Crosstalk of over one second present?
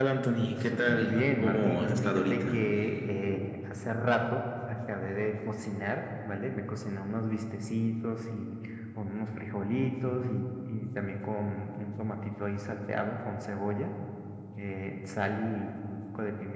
Yes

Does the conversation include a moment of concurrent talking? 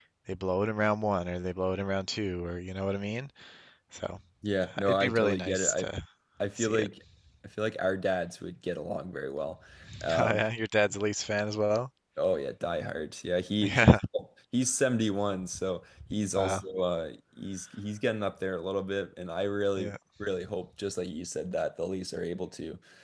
Yes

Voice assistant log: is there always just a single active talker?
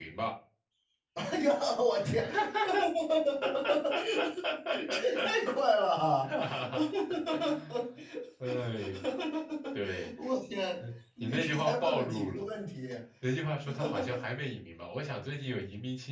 No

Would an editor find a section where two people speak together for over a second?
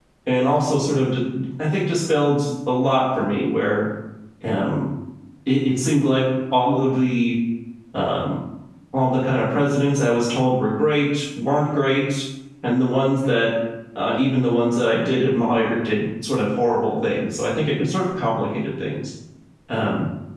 No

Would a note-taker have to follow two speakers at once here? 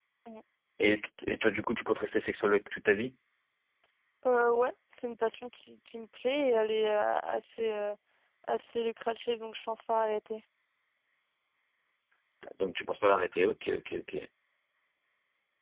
No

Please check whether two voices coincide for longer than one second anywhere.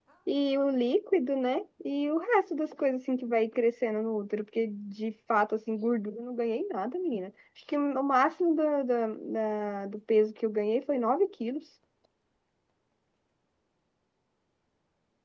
No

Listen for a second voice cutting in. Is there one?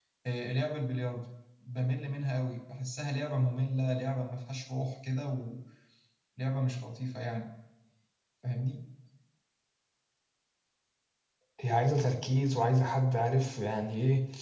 No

